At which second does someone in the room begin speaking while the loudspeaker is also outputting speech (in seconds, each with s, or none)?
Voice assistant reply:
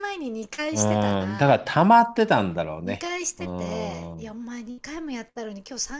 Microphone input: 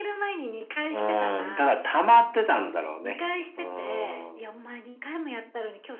none